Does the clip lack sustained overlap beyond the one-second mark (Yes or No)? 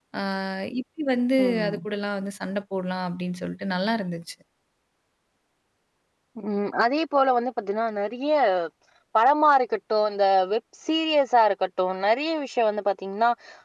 Yes